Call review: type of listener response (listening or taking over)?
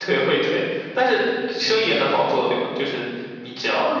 taking over